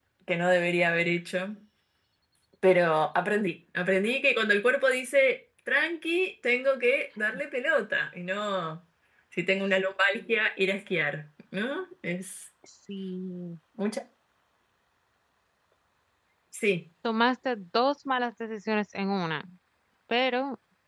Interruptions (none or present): none